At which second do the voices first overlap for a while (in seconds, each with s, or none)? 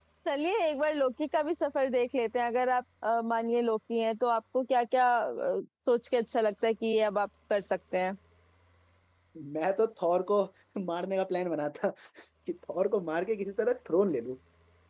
none